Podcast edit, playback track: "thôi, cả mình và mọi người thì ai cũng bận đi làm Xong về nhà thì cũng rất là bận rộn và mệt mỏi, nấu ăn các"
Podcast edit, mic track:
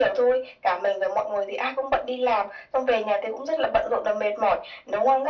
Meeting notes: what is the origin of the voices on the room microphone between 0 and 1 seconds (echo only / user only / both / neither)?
echo only